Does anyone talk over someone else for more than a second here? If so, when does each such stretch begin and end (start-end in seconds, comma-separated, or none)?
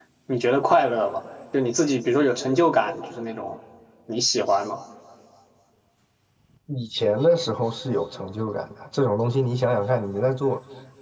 none